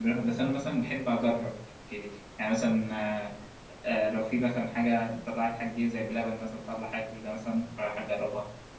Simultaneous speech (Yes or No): No